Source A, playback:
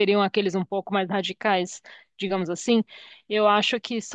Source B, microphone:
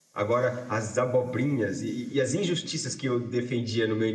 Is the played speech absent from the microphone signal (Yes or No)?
Yes